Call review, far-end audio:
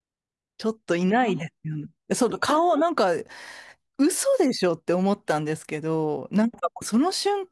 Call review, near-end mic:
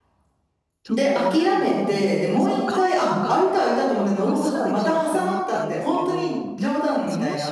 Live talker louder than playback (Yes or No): Yes